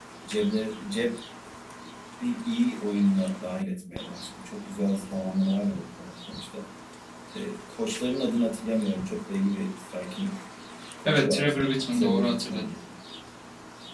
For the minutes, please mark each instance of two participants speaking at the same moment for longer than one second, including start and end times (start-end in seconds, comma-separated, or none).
11.1-12.6